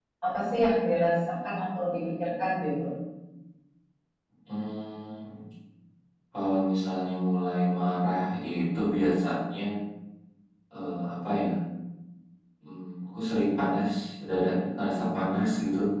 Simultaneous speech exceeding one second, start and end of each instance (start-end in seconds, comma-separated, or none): none